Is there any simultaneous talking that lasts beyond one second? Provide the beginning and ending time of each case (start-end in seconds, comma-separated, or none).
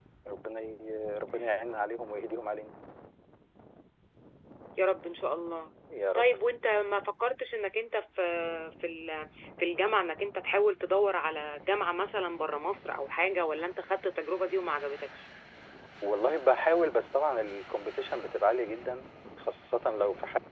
none